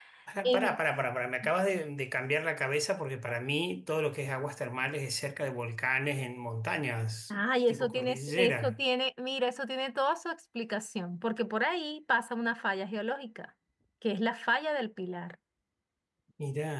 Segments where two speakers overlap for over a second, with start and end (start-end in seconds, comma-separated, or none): 7.3-8.8